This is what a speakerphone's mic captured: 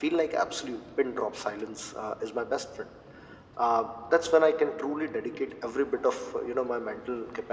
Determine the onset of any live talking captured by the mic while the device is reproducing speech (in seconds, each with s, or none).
none